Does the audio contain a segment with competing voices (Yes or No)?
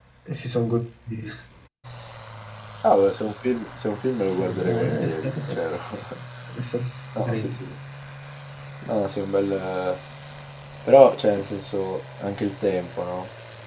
Yes